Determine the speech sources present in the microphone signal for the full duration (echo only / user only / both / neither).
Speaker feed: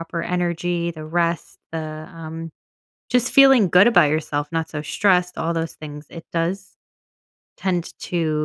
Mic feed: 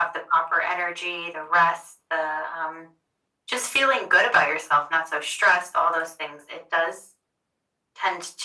echo only